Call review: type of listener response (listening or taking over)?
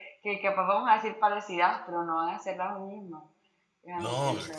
taking over